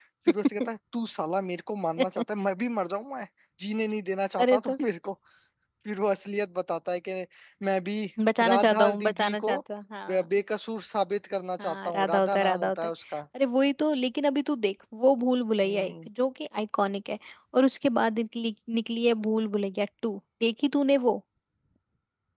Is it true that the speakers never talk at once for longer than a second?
No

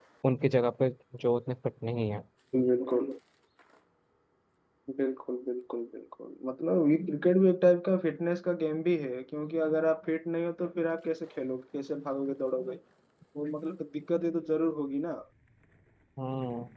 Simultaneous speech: No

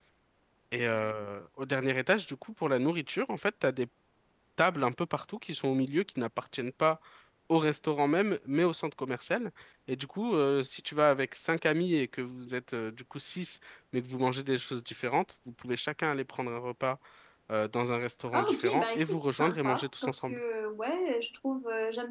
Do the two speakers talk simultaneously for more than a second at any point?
Yes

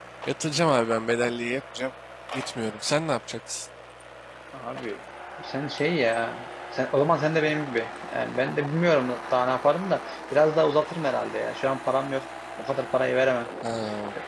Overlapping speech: No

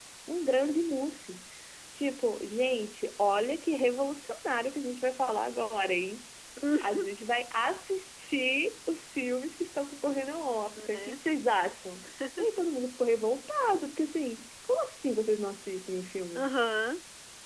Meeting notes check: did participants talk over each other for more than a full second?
No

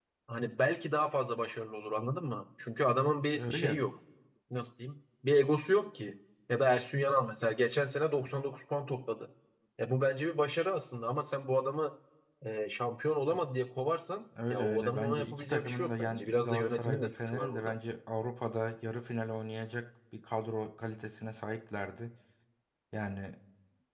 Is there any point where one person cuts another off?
Yes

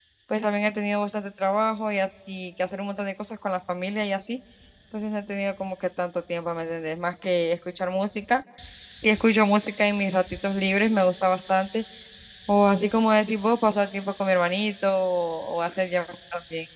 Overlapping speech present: No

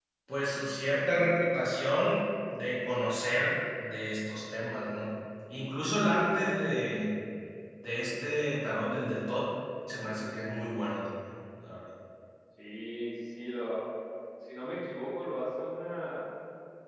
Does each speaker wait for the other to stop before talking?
Yes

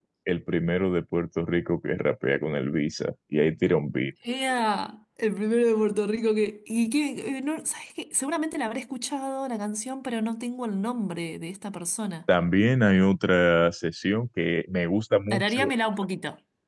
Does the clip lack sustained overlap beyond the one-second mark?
Yes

